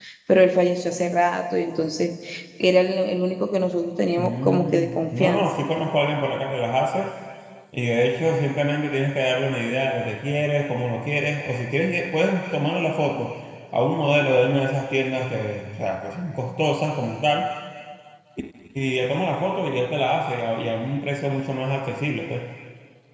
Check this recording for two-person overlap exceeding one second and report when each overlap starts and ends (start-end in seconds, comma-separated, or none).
4.2-5.5